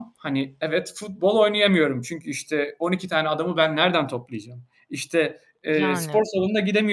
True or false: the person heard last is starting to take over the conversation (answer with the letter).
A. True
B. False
B